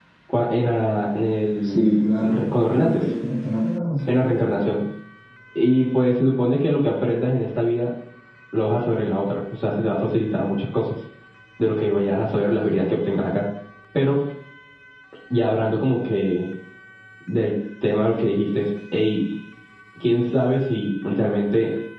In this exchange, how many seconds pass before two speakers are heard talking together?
2 s

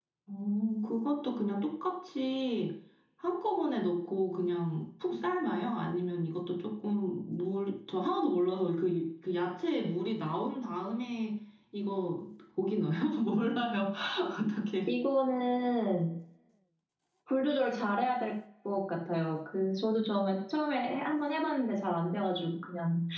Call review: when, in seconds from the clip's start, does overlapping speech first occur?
none

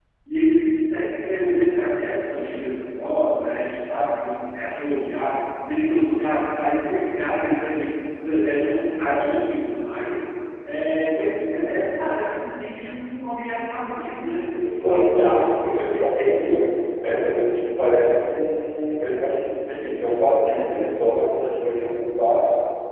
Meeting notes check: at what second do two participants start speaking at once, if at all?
14 s

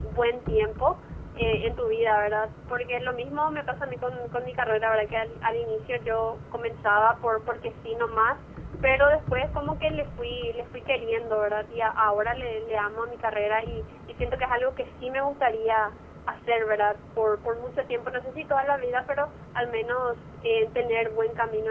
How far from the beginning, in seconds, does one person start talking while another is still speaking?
none

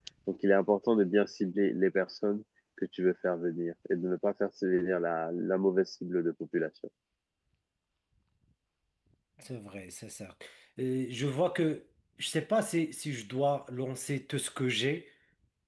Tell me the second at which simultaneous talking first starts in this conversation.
none

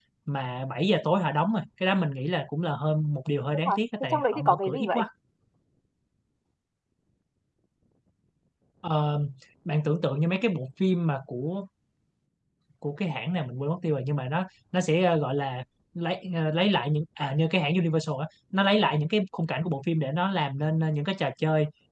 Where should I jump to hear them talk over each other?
4 s

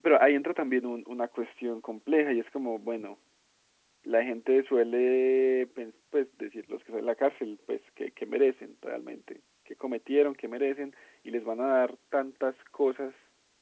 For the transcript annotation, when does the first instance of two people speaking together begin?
none

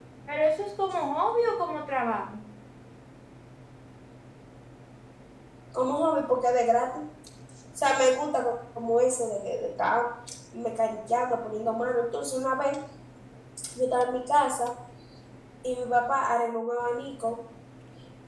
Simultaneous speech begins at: none

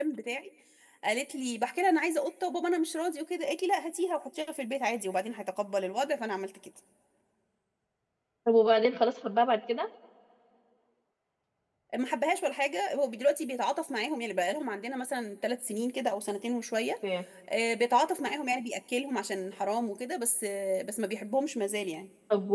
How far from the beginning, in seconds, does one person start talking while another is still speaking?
none

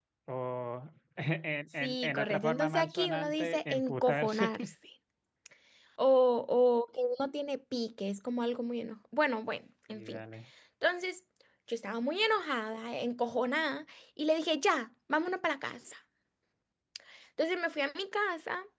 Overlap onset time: 2 s

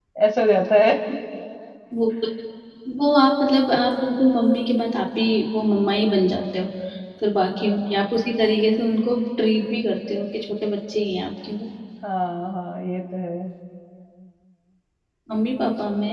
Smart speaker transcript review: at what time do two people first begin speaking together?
none

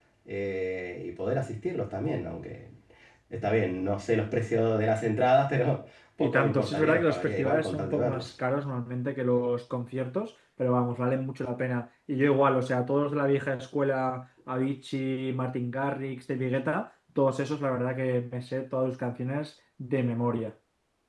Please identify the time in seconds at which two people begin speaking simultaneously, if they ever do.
6 s

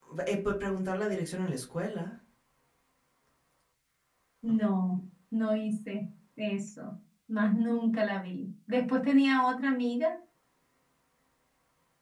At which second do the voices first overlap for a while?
none

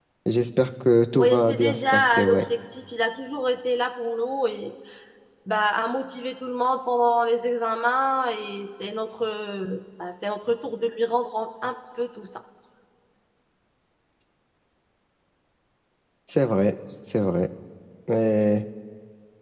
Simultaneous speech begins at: 1 s

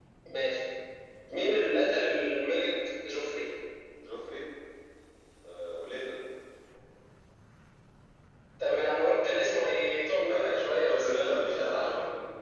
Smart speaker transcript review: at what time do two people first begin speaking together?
10 s

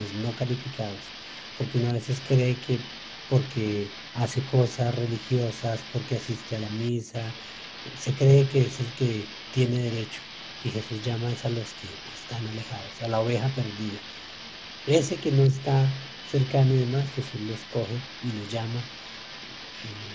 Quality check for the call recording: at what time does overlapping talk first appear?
none

